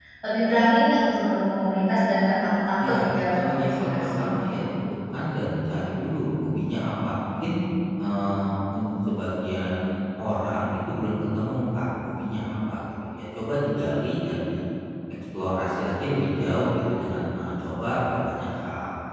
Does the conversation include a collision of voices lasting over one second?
Yes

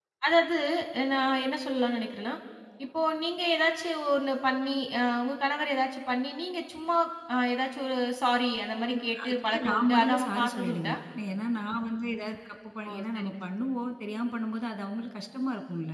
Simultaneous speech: Yes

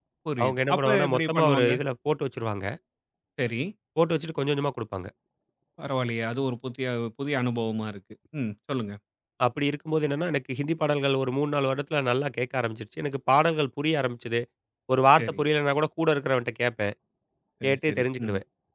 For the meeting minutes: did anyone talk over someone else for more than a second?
Yes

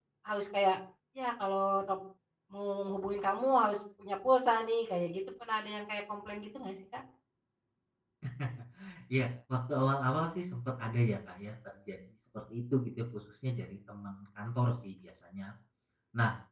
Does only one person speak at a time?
Yes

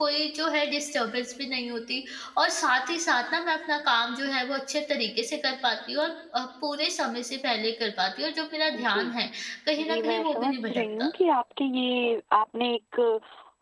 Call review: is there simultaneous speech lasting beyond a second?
Yes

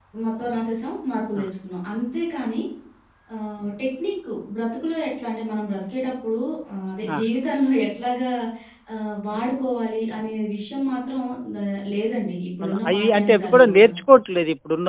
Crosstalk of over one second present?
Yes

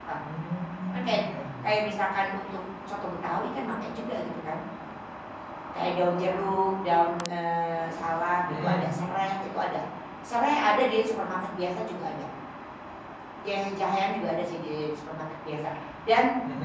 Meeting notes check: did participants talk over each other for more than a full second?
No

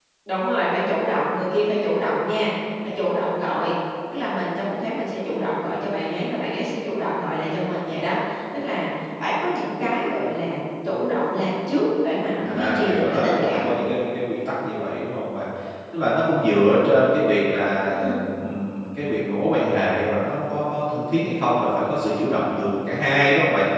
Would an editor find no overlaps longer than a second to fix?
No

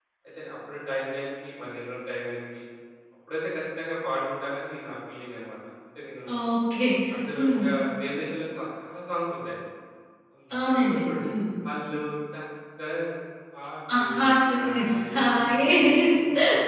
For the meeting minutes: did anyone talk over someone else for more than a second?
Yes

